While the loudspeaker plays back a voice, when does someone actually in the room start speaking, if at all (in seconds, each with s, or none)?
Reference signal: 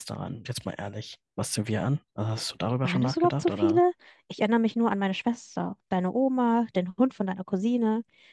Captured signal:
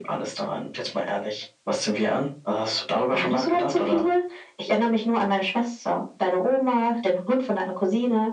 none